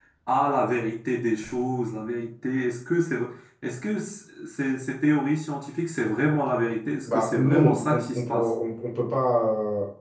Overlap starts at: 7.0 s

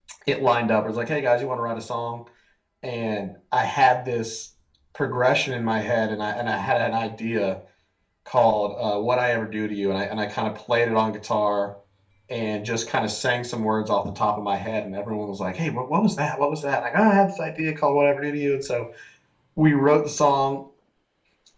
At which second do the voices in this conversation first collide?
none

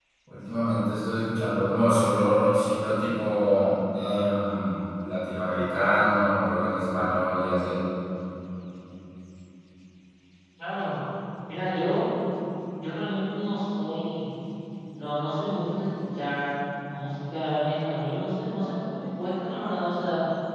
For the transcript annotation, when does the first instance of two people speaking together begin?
none

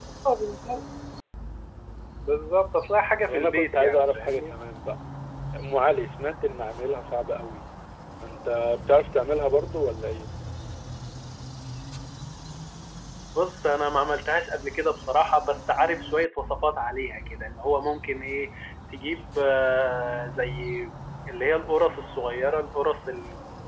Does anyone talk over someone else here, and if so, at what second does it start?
3.3 s

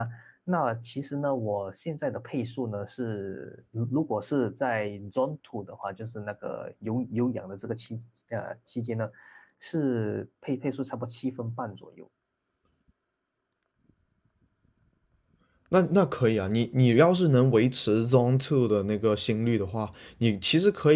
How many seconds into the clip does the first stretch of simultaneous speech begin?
none

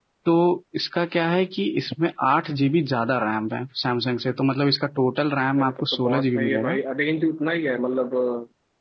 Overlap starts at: 5.6 s

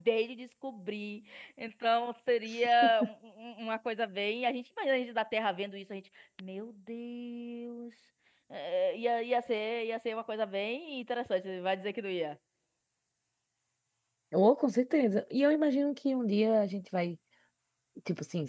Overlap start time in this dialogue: none

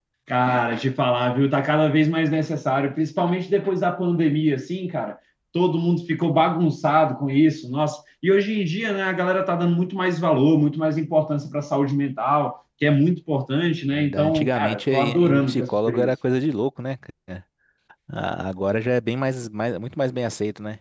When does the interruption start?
13.9 s

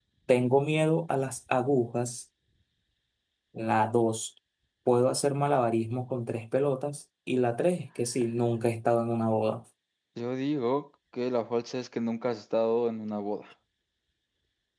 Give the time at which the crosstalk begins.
none

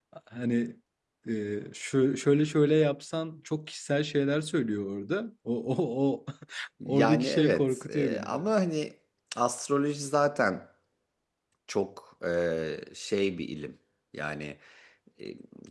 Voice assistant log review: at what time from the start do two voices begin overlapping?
6.9 s

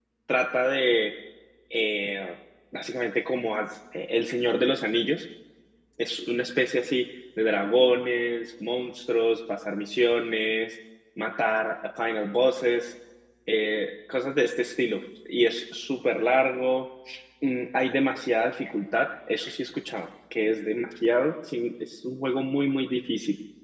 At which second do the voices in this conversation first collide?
none

